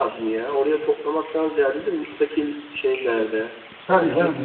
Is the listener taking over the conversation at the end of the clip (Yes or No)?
Yes